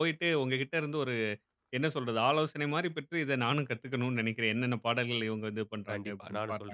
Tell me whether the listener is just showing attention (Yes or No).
No